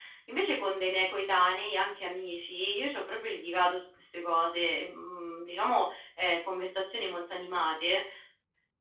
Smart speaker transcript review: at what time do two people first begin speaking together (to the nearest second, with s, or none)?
none